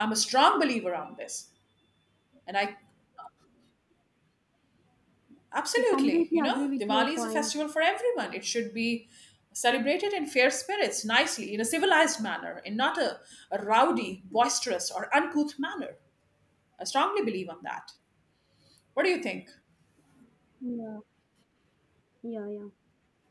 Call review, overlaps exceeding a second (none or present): present